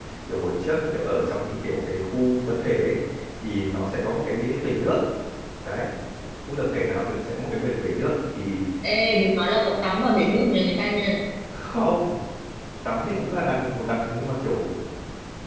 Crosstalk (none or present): none